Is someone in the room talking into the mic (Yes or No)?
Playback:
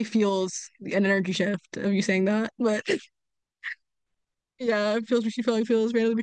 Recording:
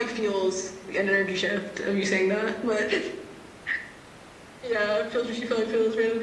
No